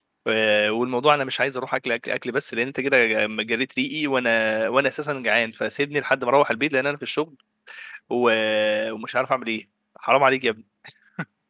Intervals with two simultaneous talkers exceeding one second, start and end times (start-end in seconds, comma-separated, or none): none